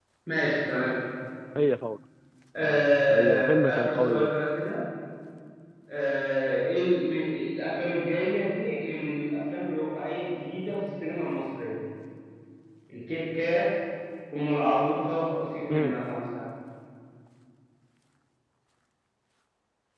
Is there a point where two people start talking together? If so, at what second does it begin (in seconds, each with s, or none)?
2.6 s